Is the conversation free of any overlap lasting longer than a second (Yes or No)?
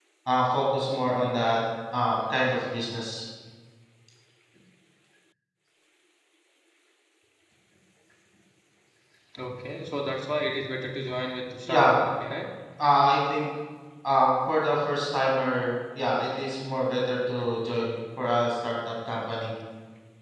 Yes